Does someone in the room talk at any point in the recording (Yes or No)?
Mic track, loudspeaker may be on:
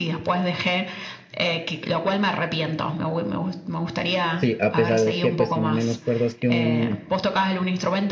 Yes